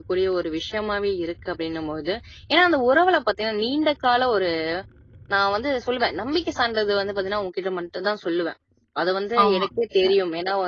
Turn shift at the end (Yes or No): No